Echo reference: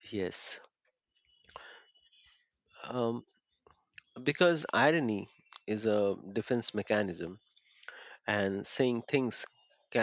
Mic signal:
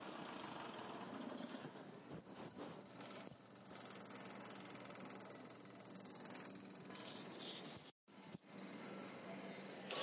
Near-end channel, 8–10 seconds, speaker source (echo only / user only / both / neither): neither